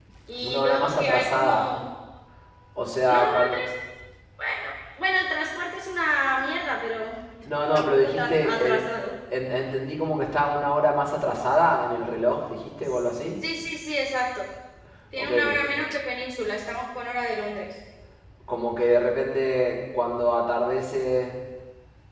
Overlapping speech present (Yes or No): Yes